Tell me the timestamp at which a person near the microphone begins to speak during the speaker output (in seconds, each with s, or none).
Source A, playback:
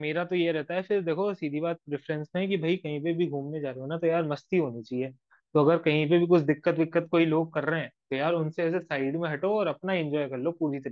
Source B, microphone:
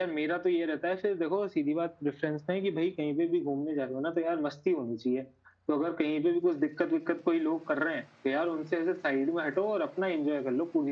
none